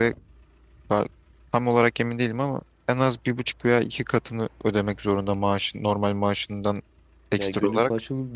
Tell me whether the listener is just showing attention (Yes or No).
No